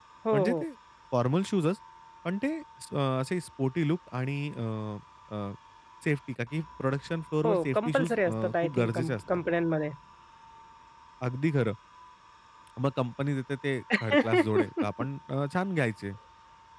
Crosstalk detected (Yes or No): Yes